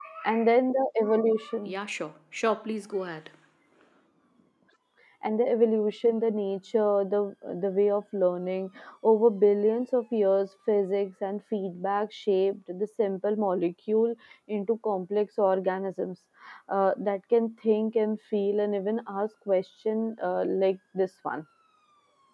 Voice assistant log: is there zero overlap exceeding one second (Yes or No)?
Yes